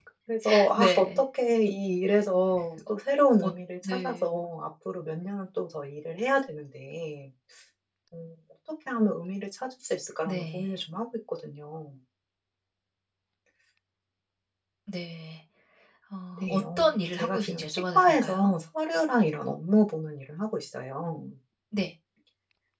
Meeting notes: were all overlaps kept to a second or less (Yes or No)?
No